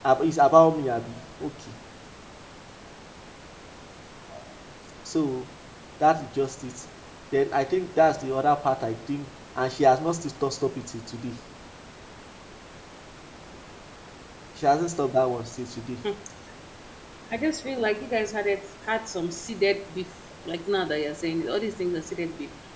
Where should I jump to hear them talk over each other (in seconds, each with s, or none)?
none